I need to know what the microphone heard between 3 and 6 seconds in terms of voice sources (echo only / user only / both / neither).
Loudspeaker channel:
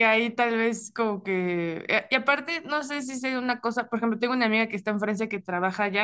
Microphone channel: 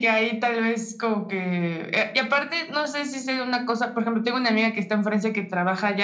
echo only